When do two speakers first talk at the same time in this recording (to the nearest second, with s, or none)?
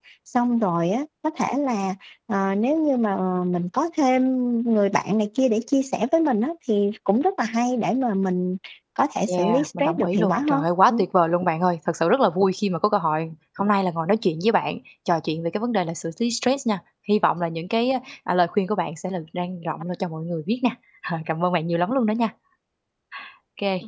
9 s